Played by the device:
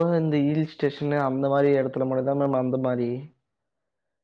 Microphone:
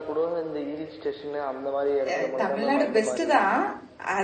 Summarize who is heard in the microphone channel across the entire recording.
both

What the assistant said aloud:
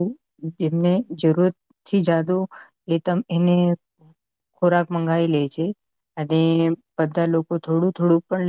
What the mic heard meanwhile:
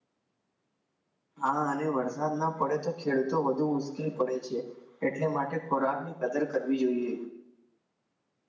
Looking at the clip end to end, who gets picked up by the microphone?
user only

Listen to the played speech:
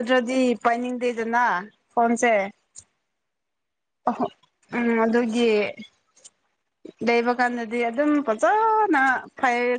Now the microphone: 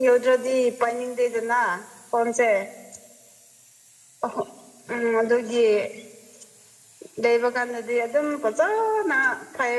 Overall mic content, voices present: echo only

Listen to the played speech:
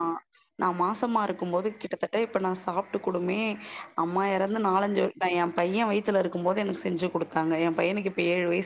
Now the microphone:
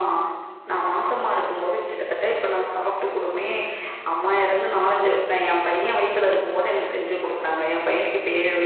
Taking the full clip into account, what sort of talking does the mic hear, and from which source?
echo only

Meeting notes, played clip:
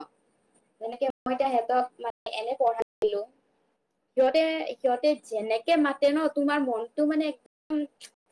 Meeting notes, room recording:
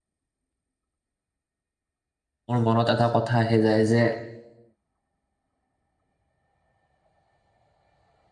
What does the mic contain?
user only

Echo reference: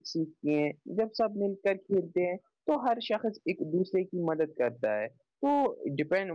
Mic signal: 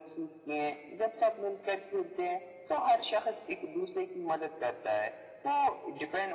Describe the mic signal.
echo only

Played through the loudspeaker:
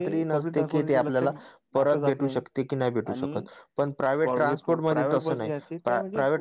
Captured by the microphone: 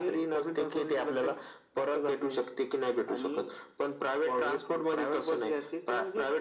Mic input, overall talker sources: echo only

